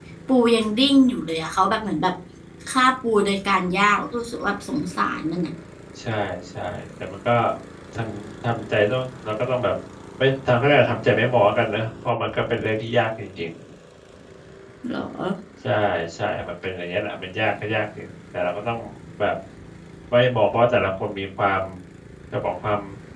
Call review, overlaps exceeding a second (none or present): none